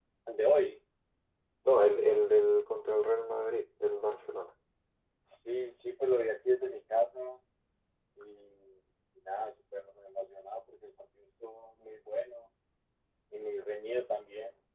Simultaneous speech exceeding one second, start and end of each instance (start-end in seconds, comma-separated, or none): none